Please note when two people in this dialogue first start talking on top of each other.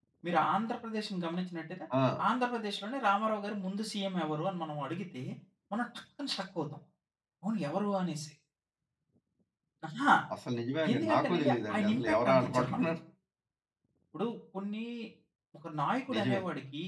10.9 s

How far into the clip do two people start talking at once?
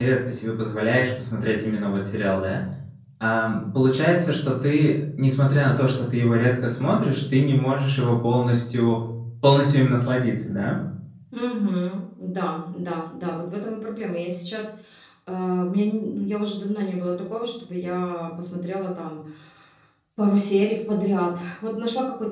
none

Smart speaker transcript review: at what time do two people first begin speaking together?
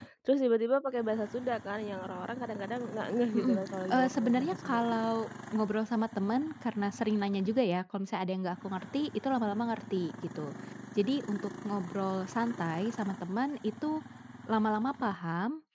3.3 s

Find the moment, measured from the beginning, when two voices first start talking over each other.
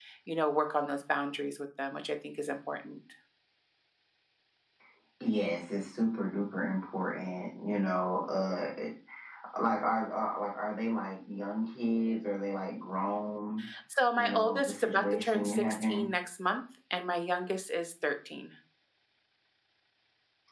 14.2 s

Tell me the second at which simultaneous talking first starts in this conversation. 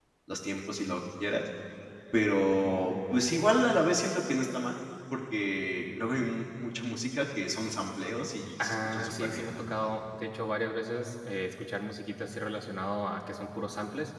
8.6 s

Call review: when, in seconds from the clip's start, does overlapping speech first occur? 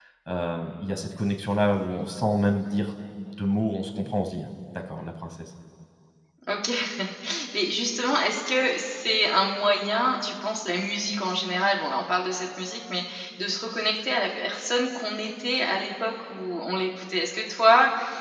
none

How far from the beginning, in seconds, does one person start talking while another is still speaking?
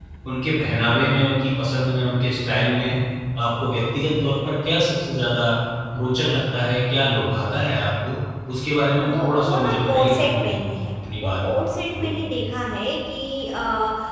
9.1 s

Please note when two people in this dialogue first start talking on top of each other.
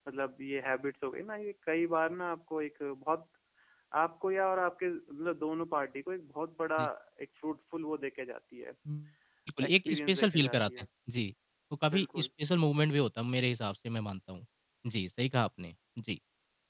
9.7 s

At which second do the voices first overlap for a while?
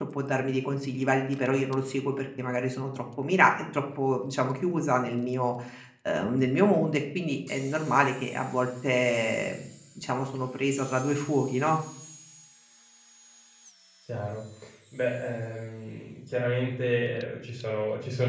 none

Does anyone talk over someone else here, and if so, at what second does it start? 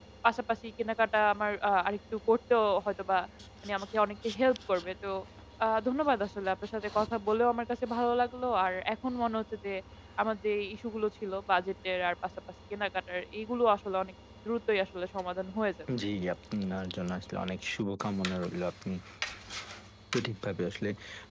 none

